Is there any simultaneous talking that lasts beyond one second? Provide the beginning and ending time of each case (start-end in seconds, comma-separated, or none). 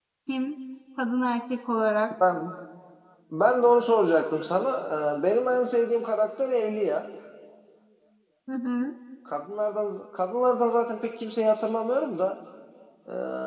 none